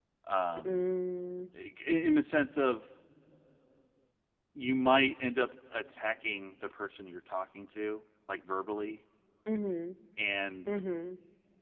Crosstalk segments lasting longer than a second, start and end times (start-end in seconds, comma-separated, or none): none